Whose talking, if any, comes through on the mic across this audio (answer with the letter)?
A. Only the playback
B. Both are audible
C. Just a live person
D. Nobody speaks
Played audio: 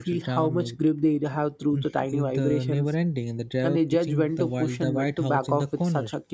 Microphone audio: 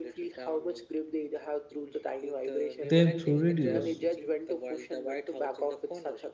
B